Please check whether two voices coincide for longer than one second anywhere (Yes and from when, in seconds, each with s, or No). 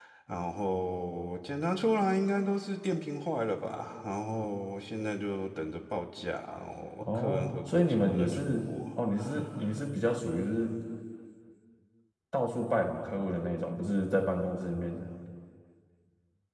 Yes, from 7.0 s